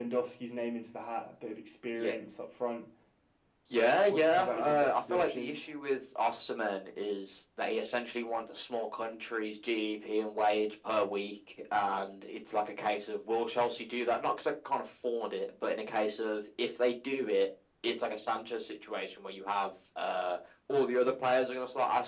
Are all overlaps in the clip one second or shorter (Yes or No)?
No